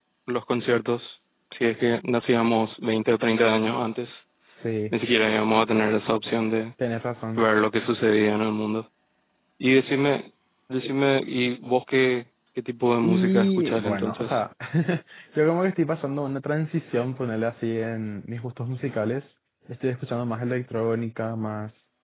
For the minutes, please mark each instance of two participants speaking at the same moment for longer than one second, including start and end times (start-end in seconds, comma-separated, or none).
13.1-14.4